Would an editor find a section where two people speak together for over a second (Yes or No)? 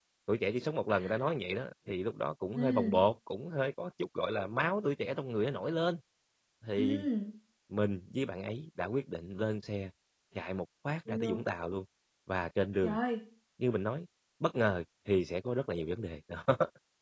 No